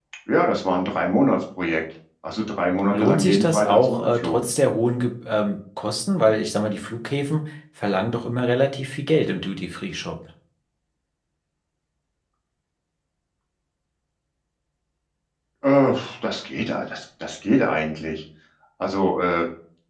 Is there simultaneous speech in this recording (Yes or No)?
Yes